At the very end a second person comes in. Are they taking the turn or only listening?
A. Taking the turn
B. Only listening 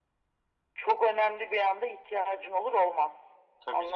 A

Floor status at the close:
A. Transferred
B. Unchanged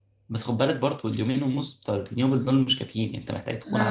A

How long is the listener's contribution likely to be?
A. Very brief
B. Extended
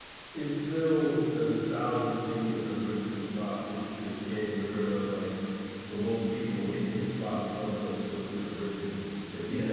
A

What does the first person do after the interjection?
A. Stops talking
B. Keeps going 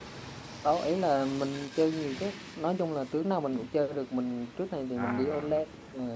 B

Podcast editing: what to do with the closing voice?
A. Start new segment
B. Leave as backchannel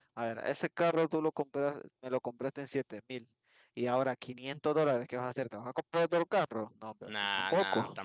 A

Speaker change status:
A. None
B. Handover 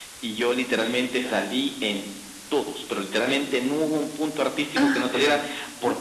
A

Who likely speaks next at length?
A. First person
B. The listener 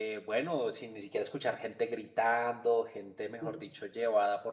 A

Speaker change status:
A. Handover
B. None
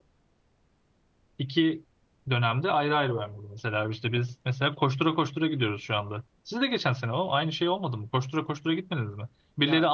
B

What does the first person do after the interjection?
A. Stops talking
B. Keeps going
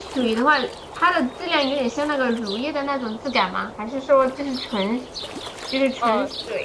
A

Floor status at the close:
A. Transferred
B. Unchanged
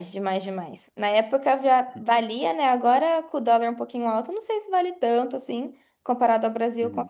B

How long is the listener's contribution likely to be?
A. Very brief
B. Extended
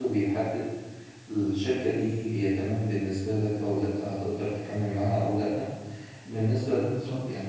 A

